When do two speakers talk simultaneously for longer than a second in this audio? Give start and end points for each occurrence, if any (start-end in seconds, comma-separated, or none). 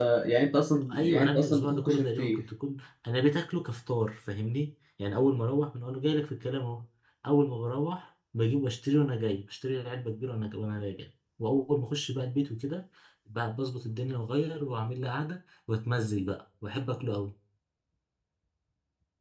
0.9-2.4